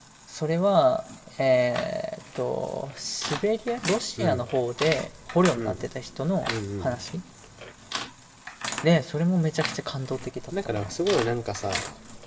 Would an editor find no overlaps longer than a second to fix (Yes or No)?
Yes